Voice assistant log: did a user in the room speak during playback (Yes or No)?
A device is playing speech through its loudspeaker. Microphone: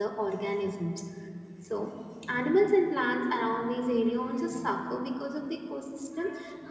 Yes